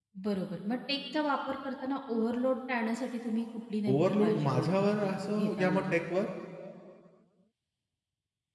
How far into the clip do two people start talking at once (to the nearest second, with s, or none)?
4 s